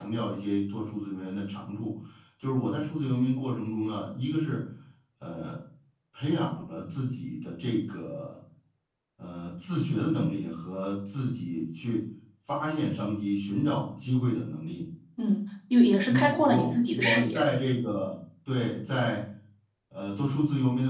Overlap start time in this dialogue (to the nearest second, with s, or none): 16 s